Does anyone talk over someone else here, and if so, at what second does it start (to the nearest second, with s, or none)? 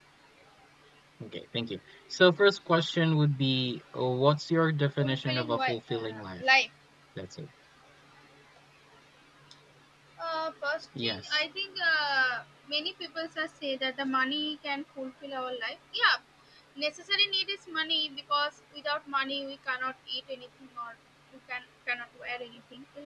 5 s